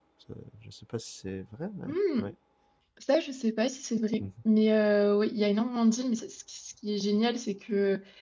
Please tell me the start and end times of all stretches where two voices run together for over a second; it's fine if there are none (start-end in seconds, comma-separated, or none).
none